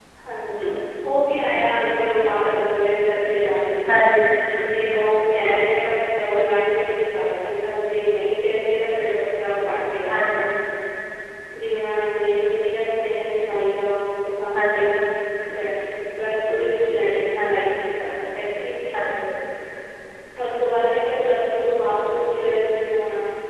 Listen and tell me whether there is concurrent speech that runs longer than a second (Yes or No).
No